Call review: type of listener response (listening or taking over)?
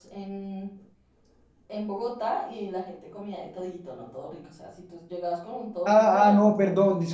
taking over